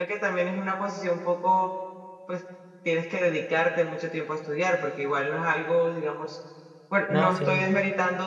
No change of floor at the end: Yes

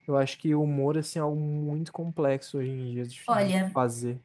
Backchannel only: No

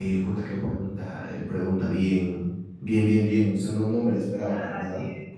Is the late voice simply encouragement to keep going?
No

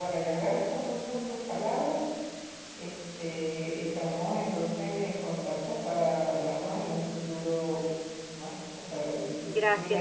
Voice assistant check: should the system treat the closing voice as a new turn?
Yes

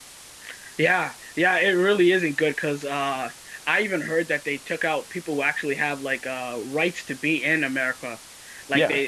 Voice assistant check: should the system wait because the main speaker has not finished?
Yes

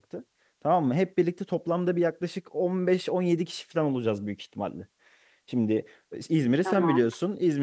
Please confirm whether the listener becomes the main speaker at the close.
No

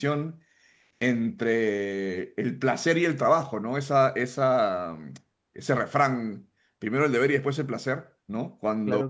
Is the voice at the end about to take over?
No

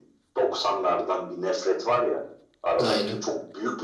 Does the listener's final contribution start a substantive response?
No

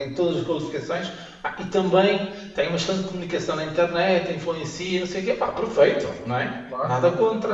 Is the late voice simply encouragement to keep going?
Yes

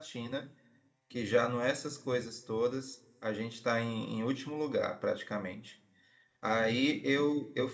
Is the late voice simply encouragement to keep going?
Yes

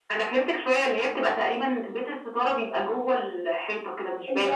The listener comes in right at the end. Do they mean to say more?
Yes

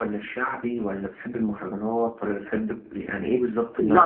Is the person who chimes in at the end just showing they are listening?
No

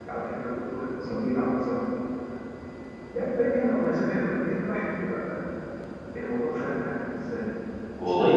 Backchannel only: No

